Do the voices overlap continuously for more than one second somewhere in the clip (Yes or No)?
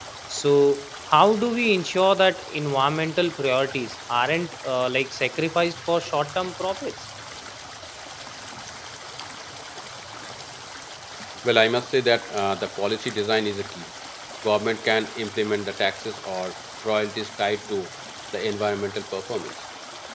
No